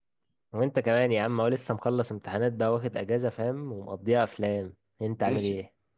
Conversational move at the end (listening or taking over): taking over